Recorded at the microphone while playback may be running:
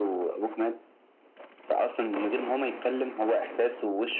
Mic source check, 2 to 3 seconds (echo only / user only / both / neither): echo only